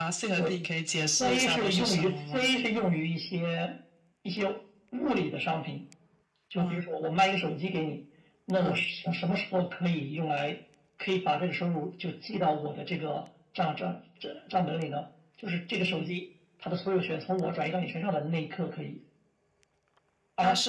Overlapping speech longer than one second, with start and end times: 1.1-2.5

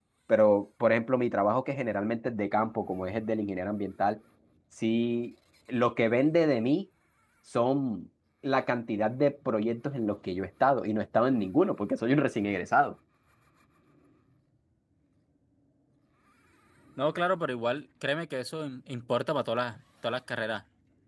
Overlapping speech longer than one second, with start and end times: none

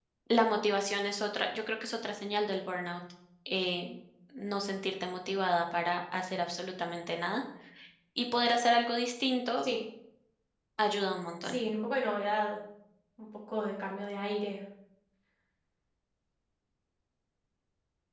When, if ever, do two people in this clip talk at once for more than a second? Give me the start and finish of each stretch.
none

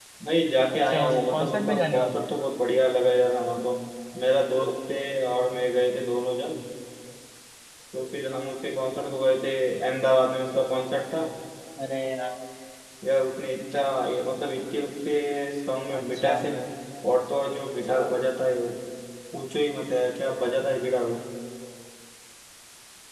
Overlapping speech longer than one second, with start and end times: 0.7-2.3

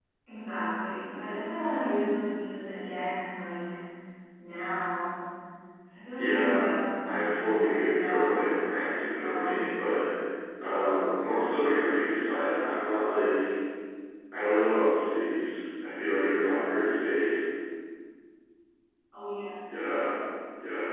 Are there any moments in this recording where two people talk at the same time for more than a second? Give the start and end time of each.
6.2-8.3

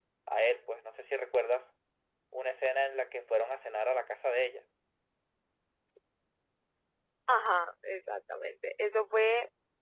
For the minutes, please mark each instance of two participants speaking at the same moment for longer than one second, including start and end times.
none

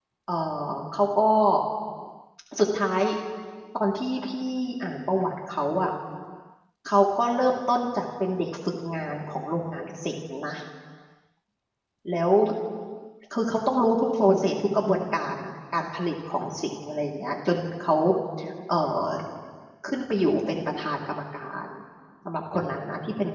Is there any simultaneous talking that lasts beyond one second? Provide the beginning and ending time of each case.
none

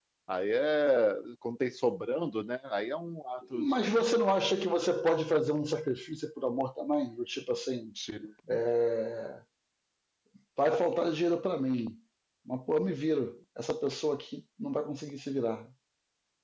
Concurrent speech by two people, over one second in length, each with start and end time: none

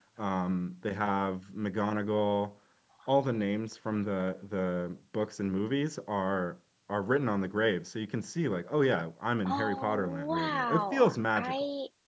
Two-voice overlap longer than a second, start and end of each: 9.5-11.5

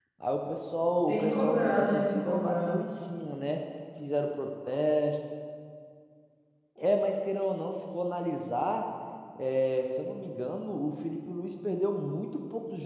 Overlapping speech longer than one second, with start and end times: 1.1-2.8

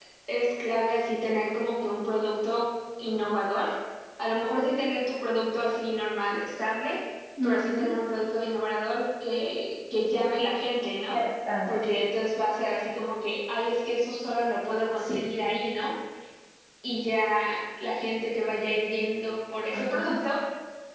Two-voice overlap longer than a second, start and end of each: none

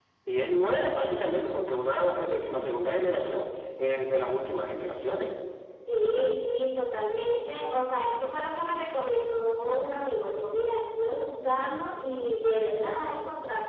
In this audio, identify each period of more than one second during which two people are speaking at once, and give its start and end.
none

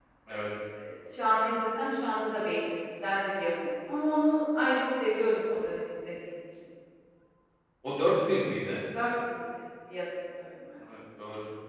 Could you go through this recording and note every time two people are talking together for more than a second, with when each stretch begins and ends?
none

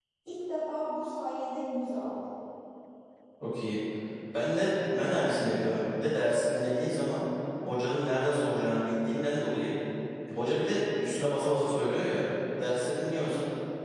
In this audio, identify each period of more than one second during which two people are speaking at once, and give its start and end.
none

